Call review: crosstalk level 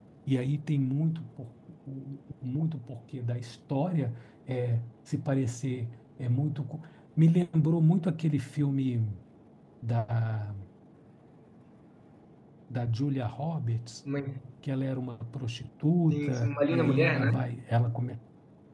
present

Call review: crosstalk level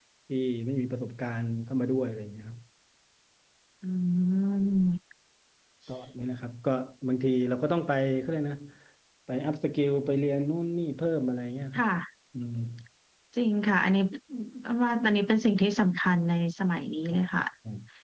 none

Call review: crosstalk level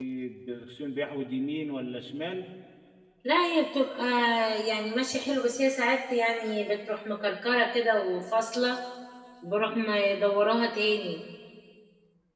none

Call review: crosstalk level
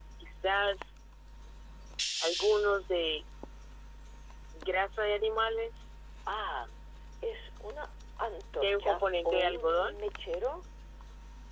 present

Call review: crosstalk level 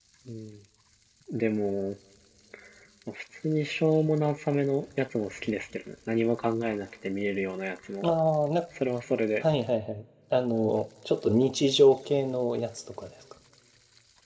none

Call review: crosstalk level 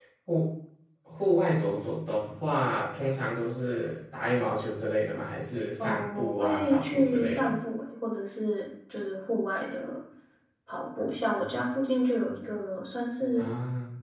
present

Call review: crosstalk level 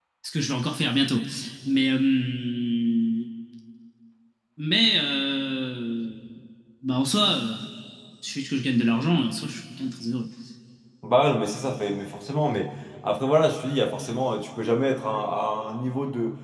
none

